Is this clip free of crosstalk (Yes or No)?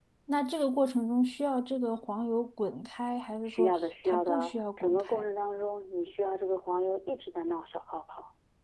No